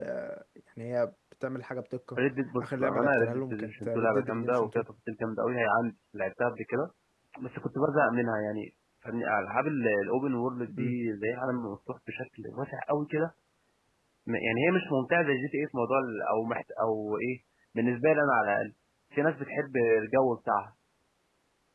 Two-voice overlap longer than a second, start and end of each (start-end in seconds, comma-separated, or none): 2.6-4.8